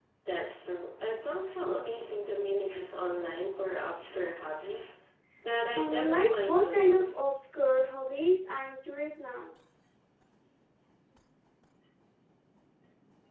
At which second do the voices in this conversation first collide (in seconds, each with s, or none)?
5.7 s